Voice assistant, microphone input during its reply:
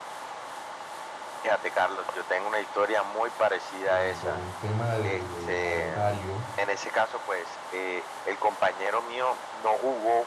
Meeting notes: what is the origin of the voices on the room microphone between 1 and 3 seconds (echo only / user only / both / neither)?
echo only